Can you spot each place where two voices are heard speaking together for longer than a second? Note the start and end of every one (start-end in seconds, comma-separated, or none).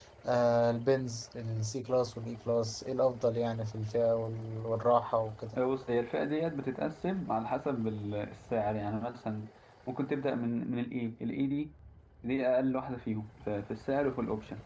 none